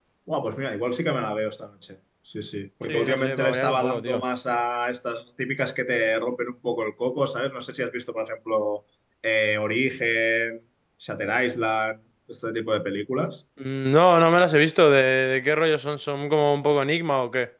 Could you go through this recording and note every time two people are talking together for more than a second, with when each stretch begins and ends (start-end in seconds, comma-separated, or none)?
2.9-4.2